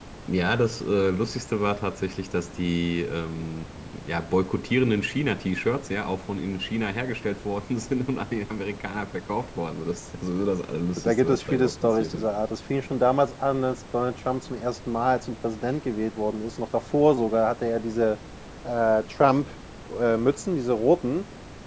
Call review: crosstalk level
present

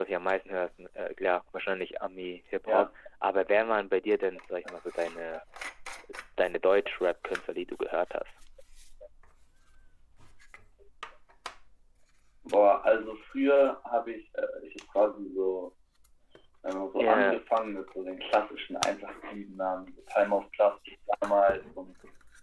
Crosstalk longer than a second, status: none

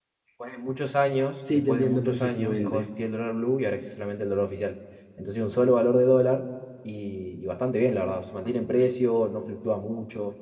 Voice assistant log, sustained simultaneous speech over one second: present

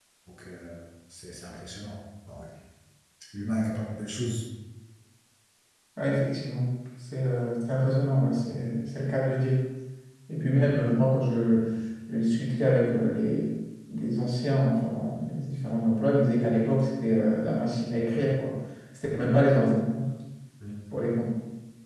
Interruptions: none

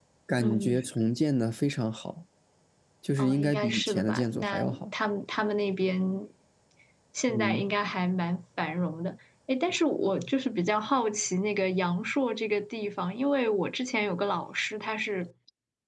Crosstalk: present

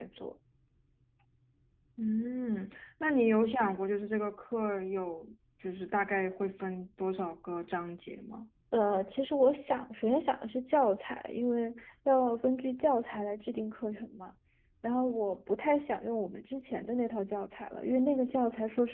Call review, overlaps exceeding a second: none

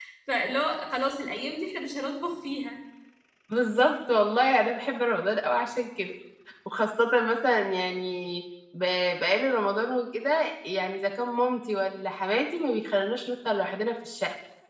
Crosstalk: none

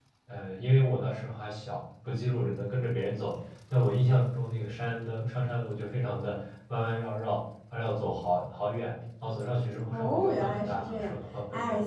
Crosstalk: present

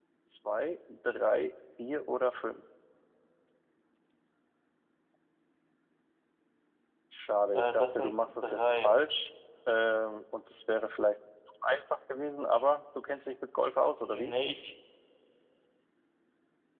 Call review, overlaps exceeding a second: present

